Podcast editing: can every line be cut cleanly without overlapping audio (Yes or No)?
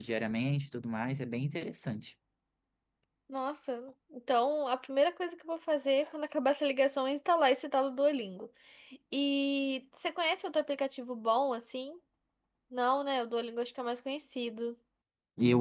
Yes